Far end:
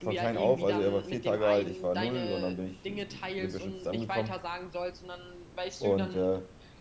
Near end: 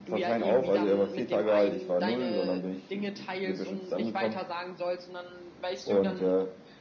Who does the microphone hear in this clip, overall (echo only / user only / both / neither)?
echo only